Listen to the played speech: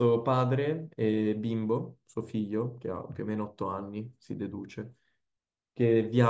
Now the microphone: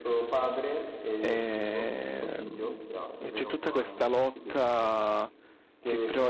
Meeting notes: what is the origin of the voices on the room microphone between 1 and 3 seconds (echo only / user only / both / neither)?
both